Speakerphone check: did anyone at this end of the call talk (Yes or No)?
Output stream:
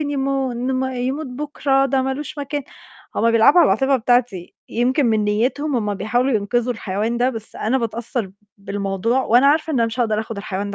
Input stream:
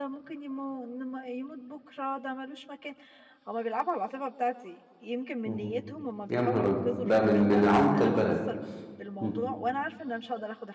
Yes